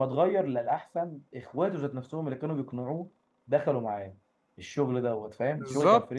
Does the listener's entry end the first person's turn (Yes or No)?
Yes